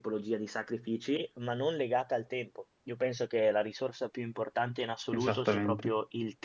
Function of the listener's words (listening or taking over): listening